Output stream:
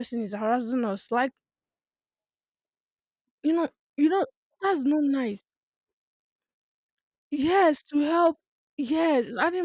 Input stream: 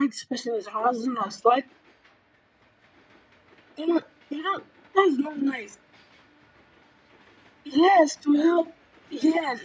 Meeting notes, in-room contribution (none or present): none